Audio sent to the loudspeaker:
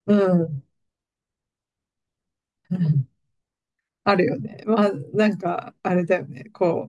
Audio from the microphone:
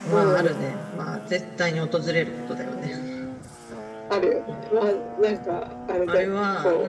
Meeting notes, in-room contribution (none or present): present